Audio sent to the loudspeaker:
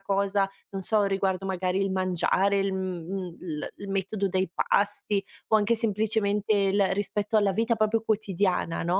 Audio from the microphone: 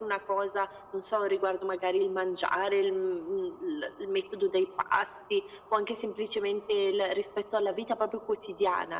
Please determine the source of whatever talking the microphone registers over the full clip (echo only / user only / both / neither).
echo only